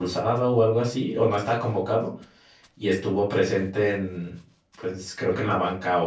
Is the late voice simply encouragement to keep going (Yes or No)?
Yes